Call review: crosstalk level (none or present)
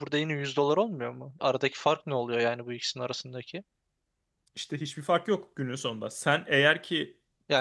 none